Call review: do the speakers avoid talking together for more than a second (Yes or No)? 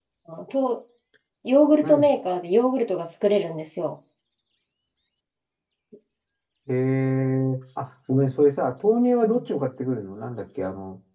Yes